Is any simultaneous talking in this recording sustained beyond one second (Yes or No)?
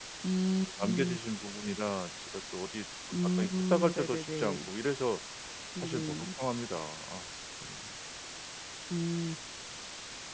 Yes